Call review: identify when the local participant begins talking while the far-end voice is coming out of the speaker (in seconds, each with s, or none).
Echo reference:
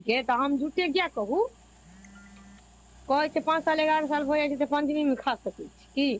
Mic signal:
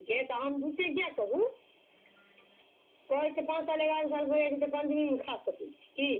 none